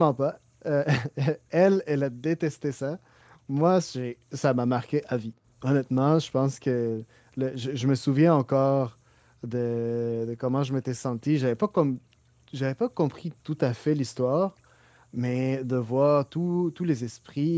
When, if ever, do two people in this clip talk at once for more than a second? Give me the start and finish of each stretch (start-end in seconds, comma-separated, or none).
none